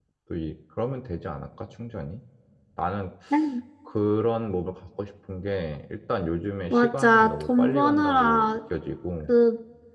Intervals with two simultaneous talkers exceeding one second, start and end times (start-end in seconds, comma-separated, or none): 6.7-8.6